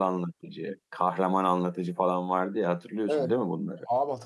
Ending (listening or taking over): taking over